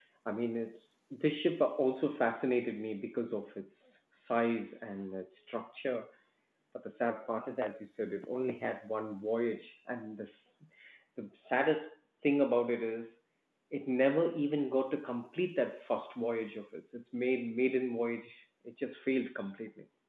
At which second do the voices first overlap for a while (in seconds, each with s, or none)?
none